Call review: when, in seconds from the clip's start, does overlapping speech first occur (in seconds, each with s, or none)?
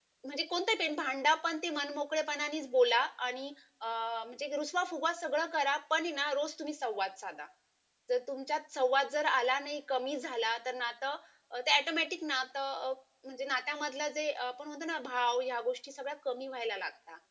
none